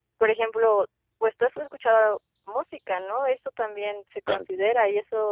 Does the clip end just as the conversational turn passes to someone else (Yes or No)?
No